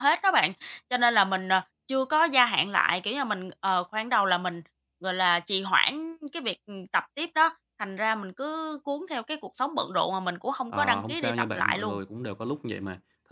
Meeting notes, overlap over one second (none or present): present